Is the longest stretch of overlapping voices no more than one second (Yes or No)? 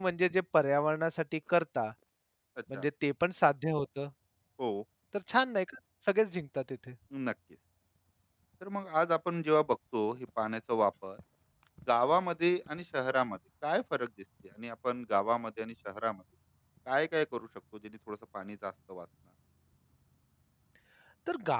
Yes